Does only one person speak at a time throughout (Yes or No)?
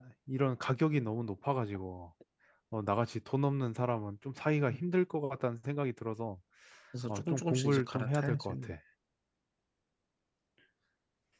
No